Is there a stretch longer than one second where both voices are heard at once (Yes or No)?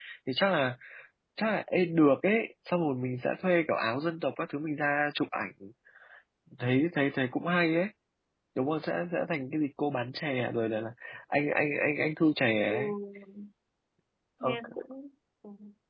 No